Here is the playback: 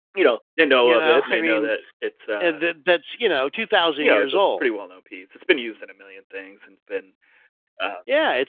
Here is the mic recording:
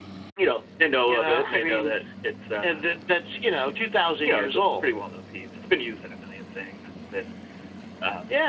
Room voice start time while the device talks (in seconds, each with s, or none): none